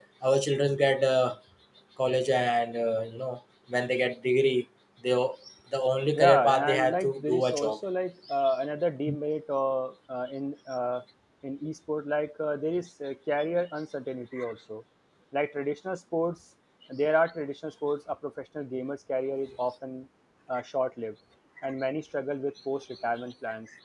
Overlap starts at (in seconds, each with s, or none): 6.2 s